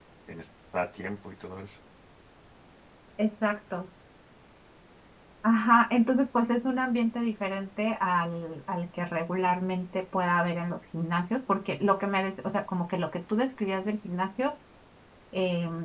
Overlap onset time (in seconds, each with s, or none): none